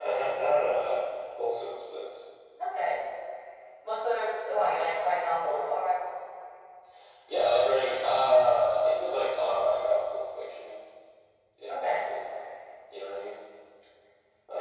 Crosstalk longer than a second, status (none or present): none